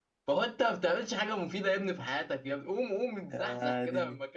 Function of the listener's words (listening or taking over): listening